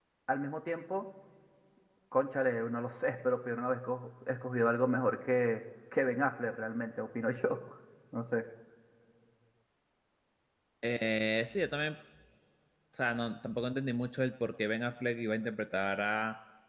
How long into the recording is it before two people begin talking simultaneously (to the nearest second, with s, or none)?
none